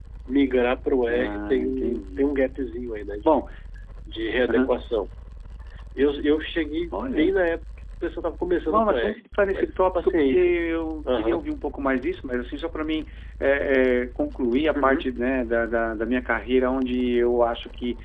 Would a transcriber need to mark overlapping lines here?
Yes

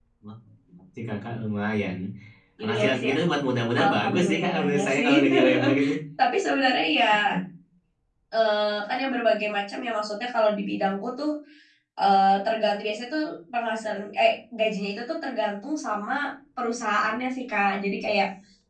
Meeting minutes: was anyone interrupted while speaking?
Yes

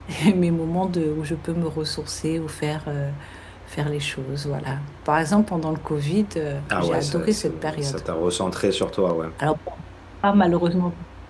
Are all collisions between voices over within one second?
No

